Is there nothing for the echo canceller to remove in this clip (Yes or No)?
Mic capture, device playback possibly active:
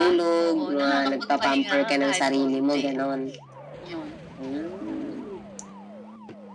No